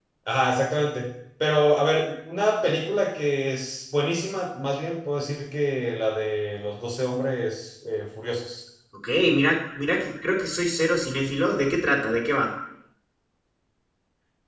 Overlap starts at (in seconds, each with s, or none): none